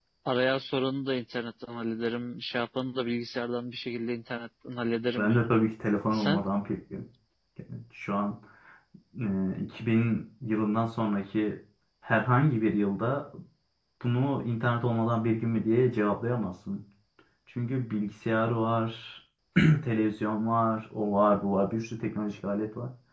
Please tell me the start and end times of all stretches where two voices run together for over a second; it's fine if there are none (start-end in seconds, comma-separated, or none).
none